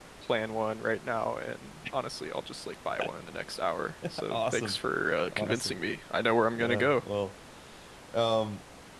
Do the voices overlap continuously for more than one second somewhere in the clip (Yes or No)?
No